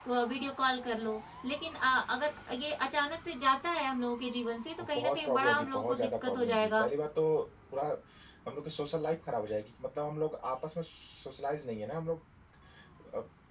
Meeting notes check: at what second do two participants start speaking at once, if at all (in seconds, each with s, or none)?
5.0 s